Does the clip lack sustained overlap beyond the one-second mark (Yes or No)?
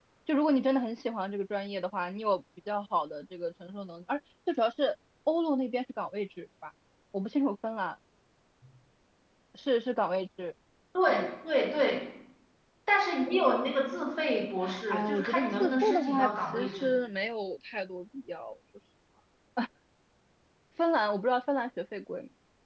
No